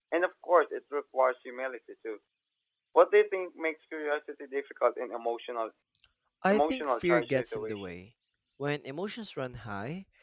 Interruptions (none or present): present